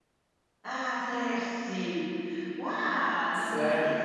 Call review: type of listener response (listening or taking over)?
listening